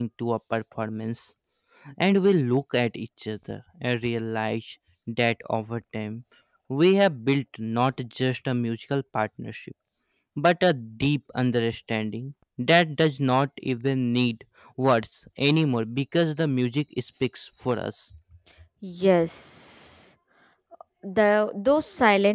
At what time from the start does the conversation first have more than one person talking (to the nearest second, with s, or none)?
none